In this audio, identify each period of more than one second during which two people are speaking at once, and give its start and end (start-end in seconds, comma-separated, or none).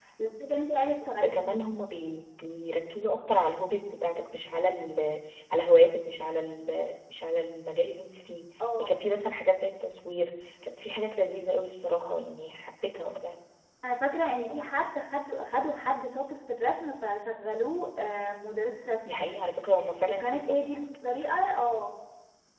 none